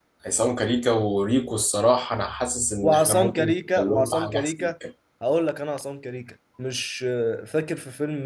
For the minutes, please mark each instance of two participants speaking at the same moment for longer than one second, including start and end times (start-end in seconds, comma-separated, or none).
2.8-4.7